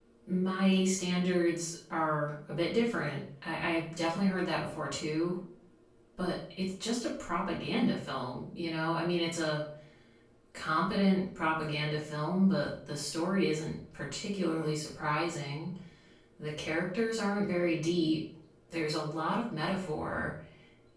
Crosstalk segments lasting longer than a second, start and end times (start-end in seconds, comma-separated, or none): none